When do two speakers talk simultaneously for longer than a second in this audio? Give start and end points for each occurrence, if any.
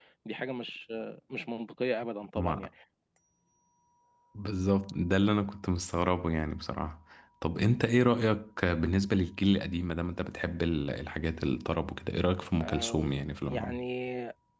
none

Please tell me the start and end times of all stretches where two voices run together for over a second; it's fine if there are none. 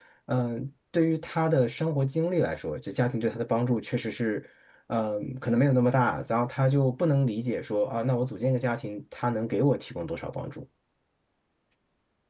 none

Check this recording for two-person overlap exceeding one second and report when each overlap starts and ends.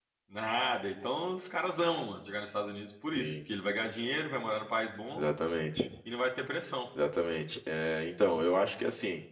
none

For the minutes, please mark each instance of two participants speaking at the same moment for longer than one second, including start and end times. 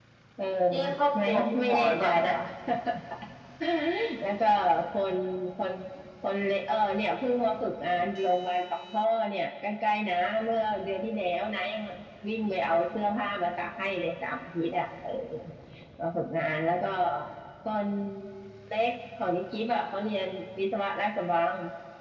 1.1-2.4

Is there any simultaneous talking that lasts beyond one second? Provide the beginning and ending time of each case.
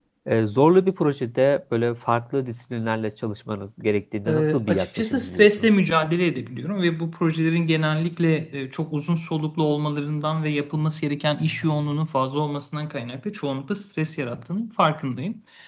4.3-5.7

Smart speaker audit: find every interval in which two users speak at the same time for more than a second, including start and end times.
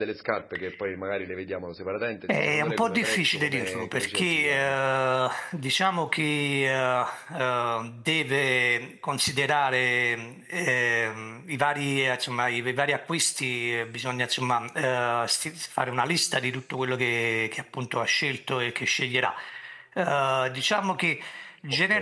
2.4-4.8

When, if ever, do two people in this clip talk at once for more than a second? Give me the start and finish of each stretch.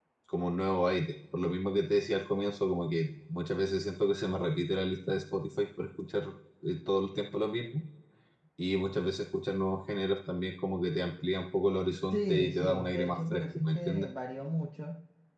12.1-14.1

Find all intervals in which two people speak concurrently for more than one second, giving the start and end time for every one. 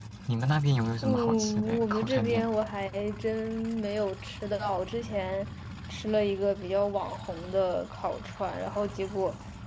1.0-2.5

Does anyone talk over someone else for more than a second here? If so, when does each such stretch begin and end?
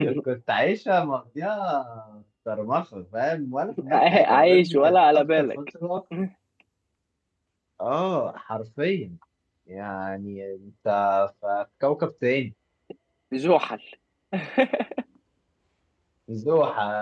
3.9-5.5

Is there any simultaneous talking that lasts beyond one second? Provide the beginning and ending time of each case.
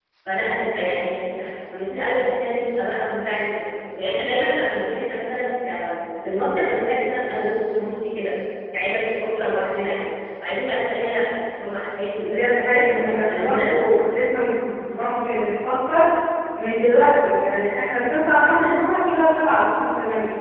12.2-13.8

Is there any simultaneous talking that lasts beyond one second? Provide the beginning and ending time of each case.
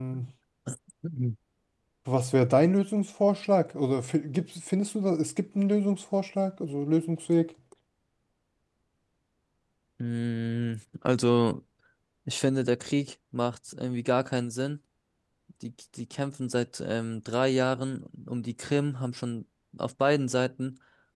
none

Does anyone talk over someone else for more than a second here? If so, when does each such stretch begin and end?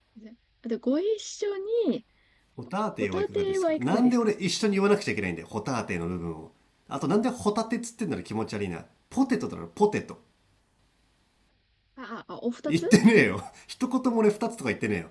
3.0-4.3

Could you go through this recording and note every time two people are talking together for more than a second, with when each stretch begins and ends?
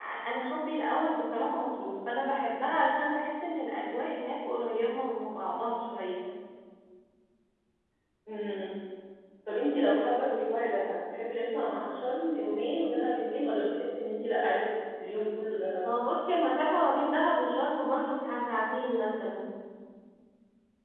none

